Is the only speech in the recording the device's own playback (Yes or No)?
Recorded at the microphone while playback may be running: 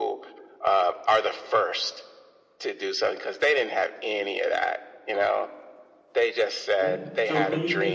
No